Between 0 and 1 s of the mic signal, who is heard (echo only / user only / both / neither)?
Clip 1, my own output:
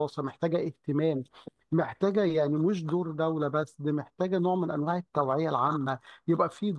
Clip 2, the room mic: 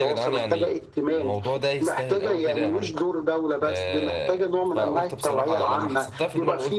both